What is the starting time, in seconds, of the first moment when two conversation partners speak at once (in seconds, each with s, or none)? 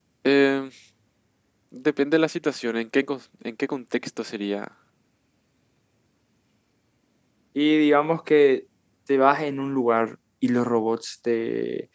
none